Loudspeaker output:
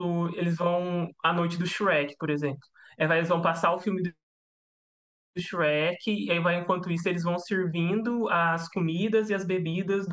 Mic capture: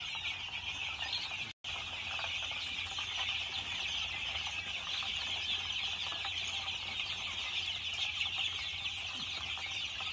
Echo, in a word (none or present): none